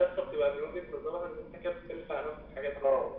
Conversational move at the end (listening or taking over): taking over